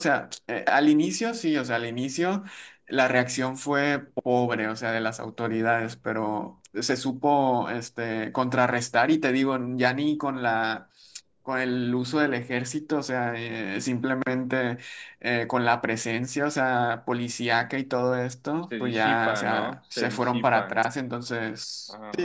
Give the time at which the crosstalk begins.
18.8 s

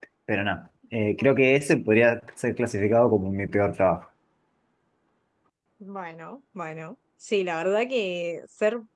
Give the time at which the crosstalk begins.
none

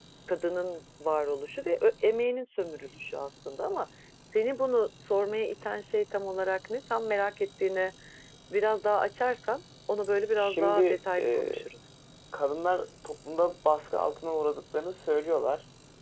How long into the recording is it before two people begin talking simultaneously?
10.4 s

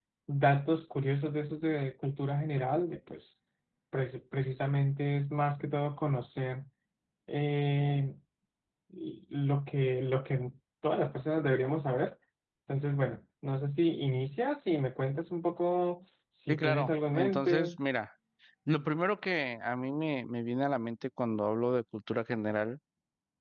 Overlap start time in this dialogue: 16.5 s

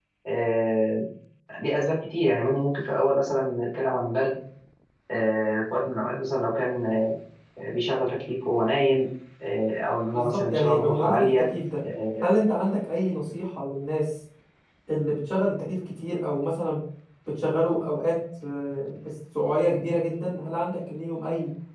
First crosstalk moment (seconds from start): 10.1 s

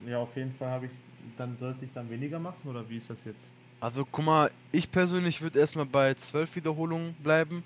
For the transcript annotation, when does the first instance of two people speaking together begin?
none

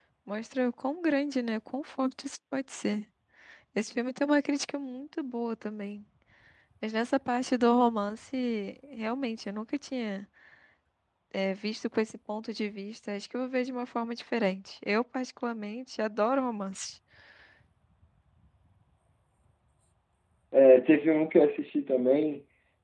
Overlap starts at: none

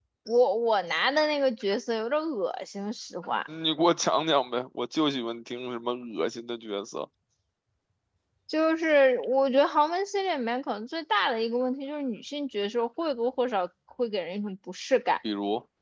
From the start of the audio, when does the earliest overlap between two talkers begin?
none

